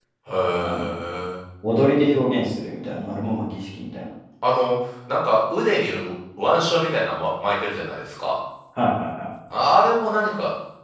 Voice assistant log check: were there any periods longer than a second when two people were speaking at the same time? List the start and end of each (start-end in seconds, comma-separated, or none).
none